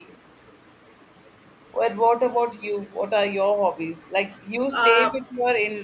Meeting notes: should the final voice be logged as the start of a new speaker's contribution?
No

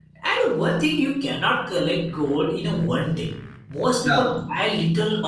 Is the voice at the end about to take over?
No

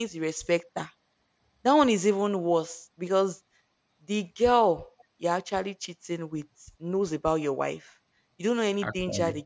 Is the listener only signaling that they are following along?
Yes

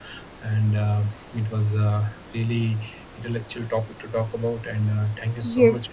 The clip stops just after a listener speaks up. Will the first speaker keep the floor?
No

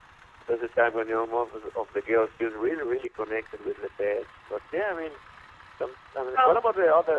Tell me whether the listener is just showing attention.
Yes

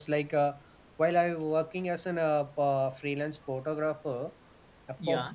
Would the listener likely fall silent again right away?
Yes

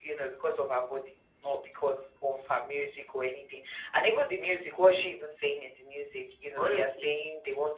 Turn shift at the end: No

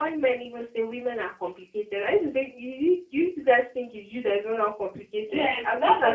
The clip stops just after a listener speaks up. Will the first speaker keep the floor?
No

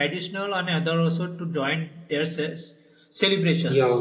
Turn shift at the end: Yes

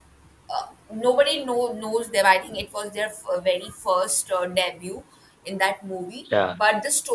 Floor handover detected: No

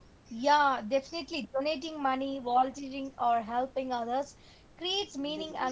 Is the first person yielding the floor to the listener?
No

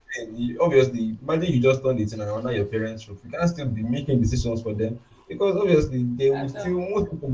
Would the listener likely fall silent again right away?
Yes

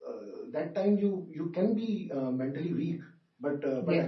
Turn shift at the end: No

